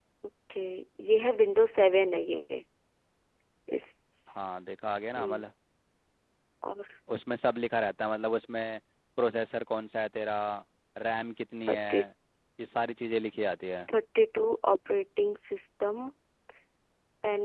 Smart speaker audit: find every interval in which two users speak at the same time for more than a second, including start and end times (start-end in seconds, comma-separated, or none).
none